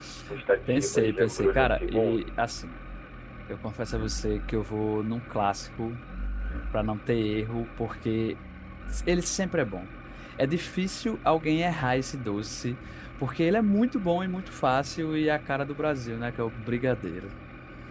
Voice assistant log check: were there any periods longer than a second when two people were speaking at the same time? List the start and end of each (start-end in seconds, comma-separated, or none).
0.7-2.3